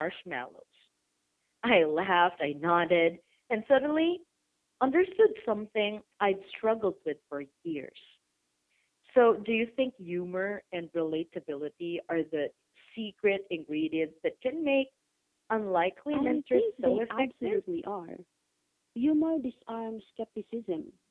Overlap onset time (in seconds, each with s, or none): 16.1 s